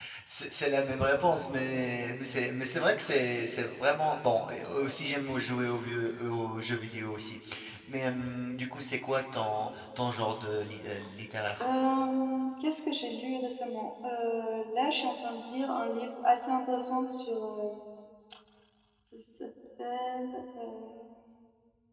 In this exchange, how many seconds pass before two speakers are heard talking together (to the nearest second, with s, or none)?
none